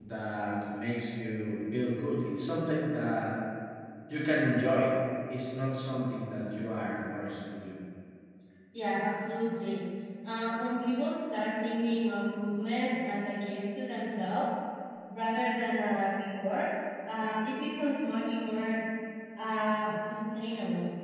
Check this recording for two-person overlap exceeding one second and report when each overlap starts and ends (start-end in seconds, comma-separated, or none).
none